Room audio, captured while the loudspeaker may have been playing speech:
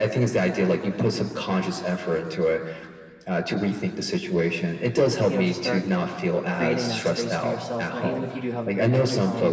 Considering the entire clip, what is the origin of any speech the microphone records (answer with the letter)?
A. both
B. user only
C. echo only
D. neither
A